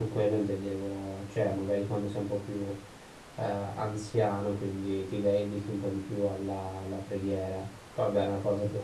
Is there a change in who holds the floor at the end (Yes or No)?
No